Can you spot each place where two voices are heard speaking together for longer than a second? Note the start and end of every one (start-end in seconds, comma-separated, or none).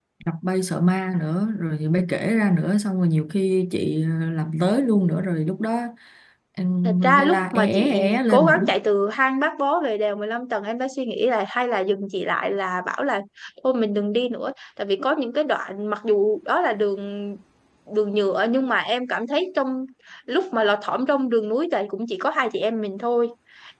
6.8-8.7